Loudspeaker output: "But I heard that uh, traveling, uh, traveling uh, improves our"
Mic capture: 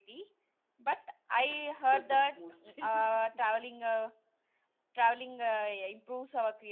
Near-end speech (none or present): present